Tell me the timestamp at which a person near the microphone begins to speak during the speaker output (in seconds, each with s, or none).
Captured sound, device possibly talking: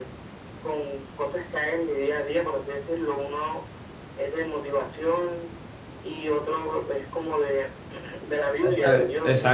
8.6 s